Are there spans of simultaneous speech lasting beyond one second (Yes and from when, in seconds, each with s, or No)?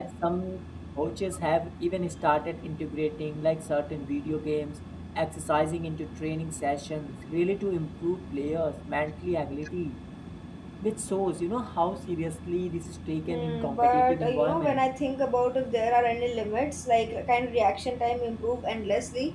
Yes, from 13.3 s